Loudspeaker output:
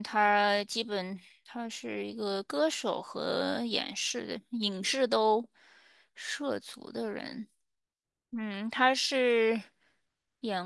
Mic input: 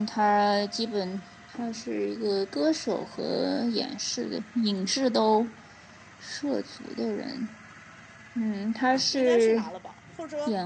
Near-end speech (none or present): present